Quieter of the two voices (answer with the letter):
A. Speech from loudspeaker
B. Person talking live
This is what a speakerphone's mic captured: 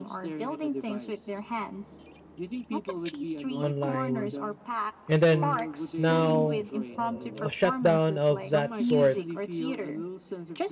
A